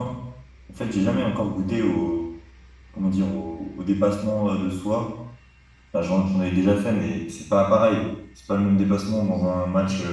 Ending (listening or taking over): taking over